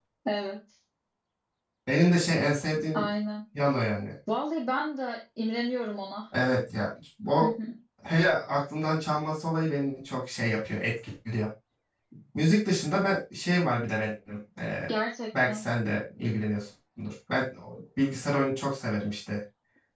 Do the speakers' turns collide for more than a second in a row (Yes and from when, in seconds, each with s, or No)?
No